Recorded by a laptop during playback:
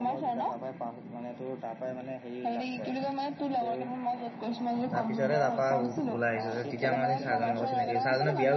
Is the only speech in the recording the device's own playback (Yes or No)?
No